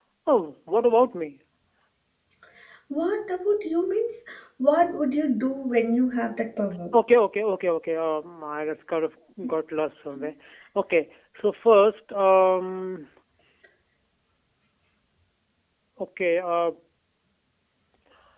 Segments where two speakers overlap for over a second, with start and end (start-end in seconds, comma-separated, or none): none